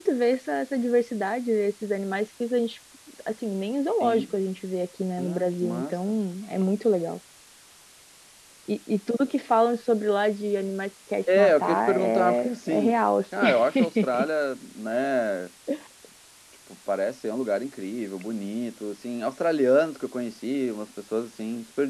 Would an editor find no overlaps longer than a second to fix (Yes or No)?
No